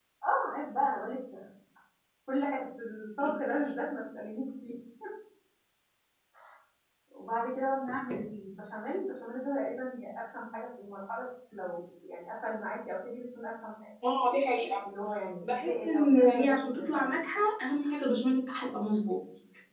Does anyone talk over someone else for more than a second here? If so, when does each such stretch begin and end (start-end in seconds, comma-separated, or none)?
15.4-17.1